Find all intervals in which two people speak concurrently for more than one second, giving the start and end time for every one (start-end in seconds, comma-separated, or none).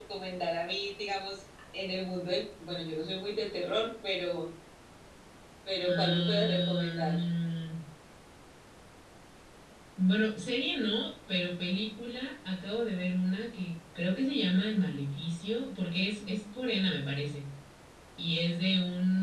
5.9-7.2